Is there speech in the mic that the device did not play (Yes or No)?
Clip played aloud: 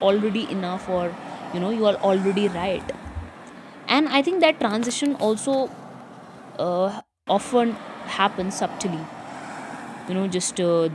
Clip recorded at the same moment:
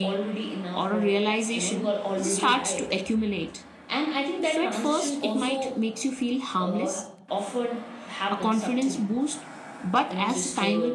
Yes